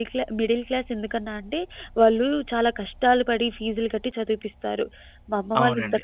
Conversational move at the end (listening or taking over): taking over